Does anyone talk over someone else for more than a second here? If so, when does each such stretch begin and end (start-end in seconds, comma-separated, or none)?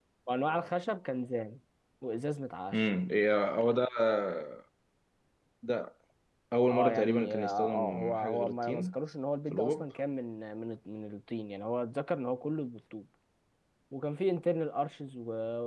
6.7-9.0